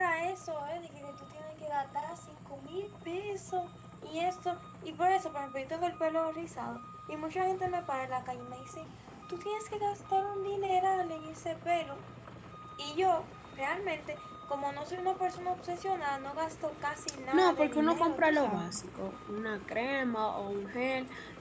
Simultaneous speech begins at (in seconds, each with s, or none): 17.3 s